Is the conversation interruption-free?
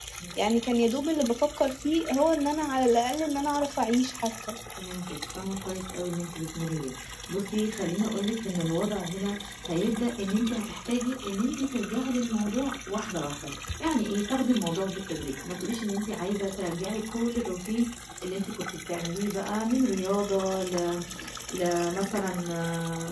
Yes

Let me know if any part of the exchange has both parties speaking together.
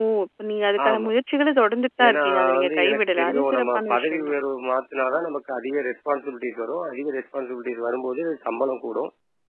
Yes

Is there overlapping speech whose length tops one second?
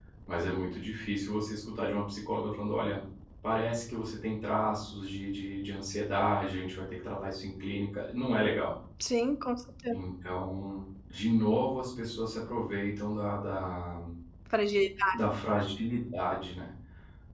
No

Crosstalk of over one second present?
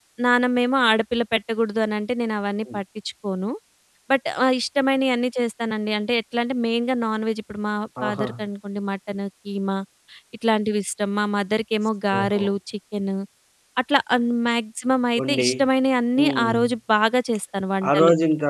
No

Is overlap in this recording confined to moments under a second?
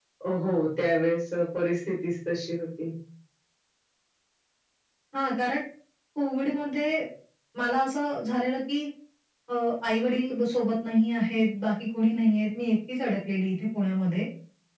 Yes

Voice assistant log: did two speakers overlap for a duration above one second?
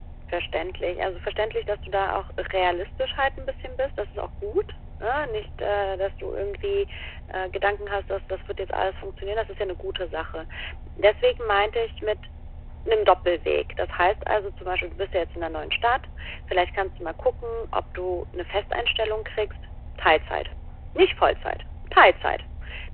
No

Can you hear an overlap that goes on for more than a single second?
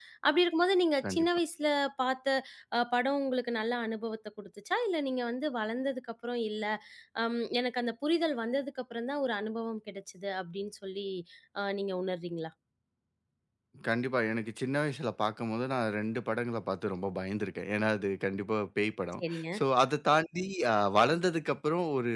No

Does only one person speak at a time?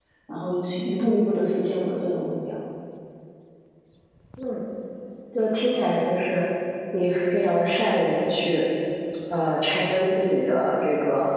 Yes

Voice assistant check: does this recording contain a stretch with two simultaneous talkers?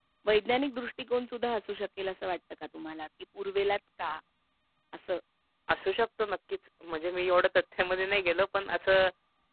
No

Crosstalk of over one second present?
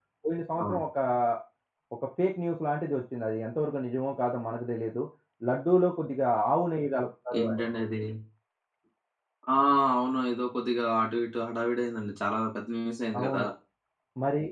No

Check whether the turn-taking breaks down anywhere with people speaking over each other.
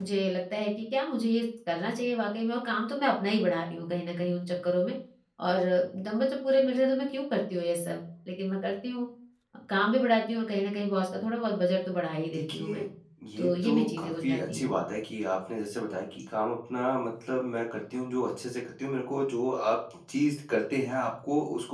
Yes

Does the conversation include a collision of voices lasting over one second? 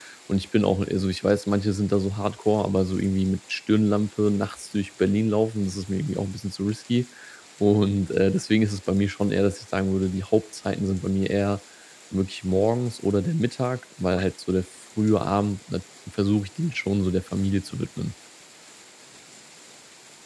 No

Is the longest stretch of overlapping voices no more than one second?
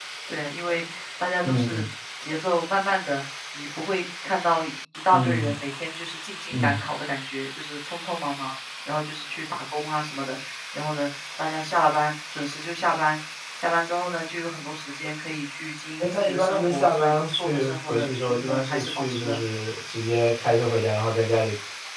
No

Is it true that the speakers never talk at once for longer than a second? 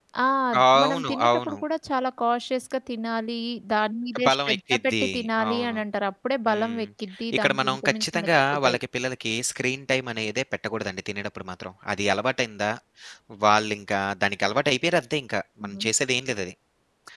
No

